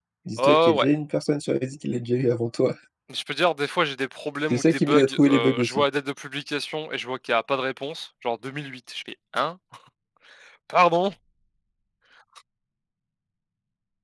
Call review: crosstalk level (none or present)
present